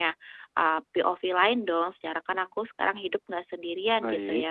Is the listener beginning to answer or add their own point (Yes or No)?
No